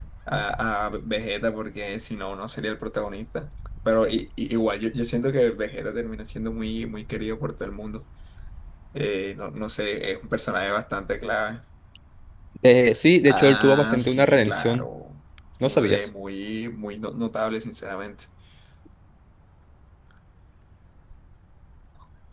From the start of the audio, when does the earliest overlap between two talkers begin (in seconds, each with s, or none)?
13.3 s